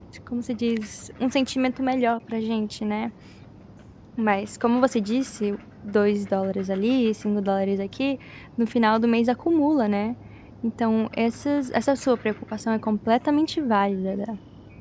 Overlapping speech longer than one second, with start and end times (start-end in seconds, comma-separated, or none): none